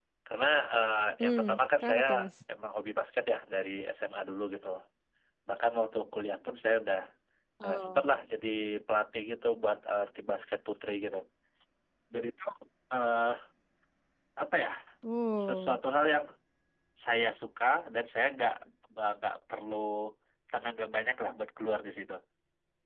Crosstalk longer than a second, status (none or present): none